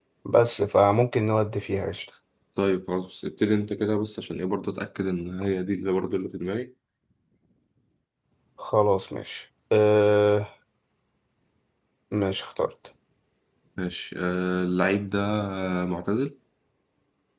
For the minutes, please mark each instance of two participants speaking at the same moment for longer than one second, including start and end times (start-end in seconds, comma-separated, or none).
none